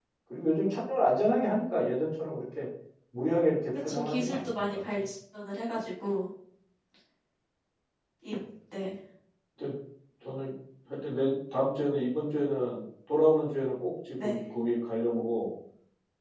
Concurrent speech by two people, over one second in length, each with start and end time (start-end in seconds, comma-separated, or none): 3.9-5.1